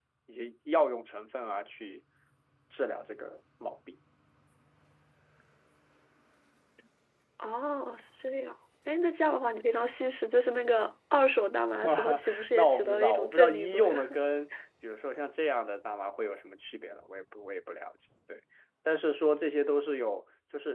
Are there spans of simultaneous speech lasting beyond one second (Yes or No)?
Yes